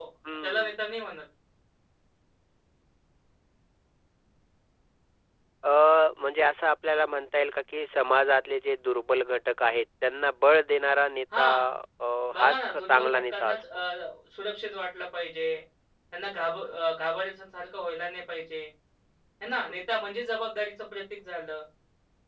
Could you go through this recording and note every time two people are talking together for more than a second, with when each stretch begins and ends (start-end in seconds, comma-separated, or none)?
12.3-13.6